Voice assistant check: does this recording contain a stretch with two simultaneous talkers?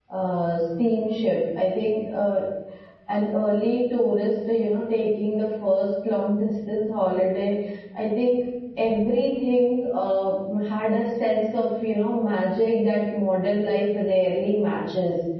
No

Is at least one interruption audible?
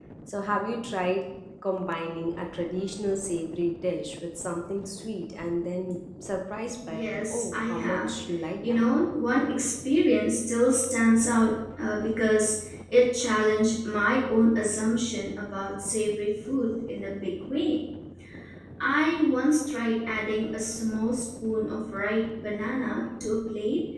Yes, from 6.9 s

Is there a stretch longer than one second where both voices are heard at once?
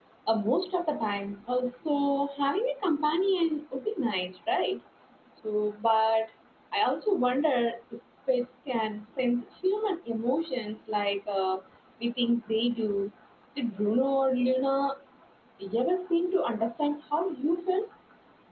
No

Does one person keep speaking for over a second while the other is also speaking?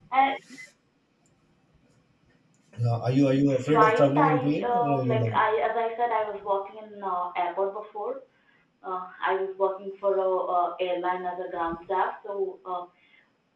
Yes, from 3.5 s

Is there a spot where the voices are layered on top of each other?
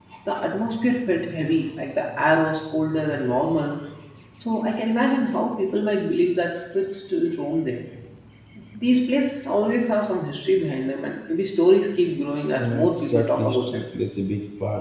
Yes, from 12.6 s

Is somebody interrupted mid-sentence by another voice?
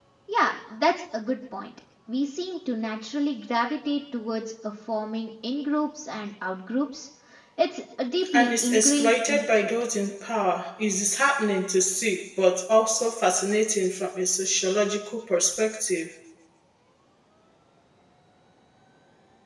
Yes, from 8.3 s

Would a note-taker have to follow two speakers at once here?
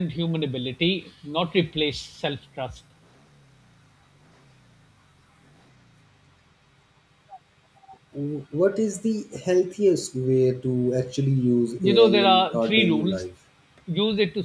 Yes, from 11.8 s

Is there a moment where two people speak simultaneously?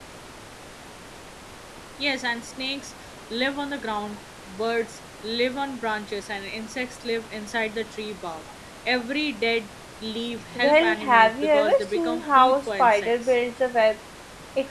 Yes, from 10.5 s

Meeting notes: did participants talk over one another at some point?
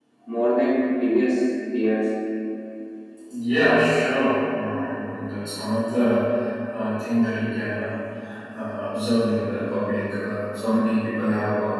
No

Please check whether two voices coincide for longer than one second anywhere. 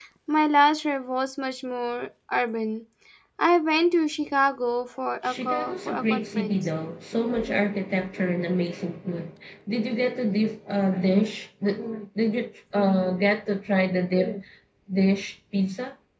Yes, from 5.2 s

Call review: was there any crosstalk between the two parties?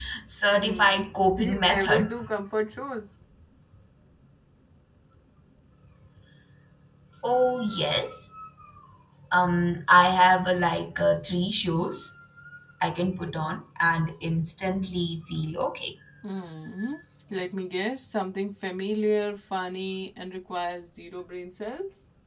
Yes, from 0.6 s

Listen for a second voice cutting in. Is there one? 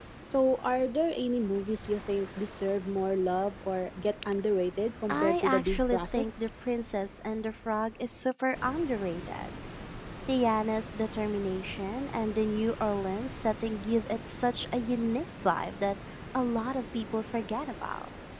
Yes, from 5.1 s

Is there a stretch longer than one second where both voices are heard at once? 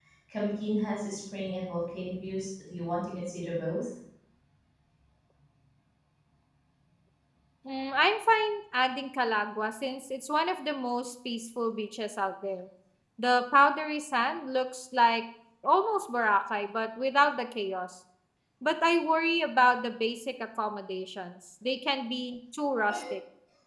No

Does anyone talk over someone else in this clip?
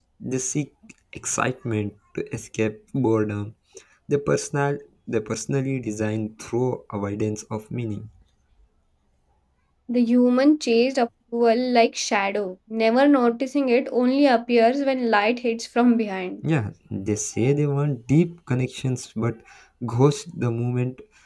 No

